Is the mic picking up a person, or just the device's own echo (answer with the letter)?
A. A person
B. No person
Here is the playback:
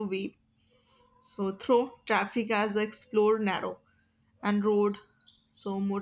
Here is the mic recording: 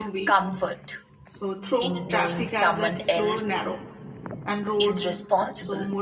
A